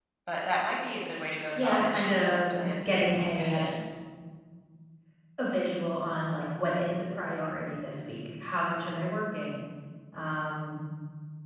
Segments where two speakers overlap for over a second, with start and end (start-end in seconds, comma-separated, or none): 1.6-3.6